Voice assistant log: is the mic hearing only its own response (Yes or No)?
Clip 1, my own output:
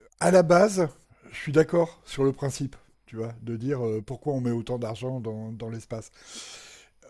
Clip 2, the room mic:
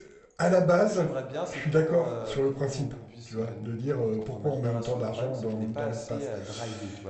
No